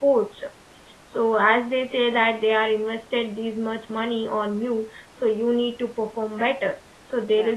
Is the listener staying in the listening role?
Yes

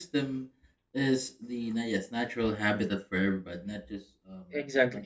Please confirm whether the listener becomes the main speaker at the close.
No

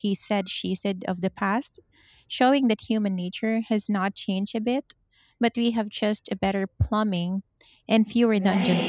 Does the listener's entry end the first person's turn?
Yes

